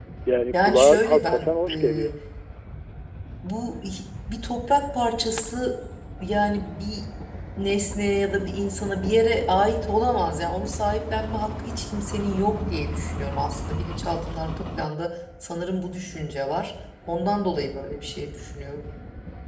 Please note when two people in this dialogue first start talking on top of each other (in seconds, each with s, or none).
0.5 s